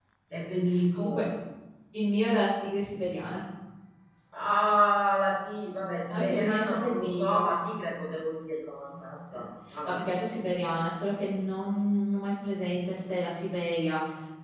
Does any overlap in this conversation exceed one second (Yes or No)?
Yes